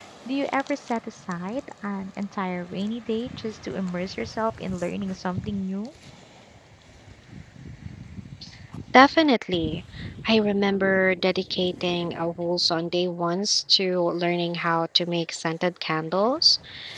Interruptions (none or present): none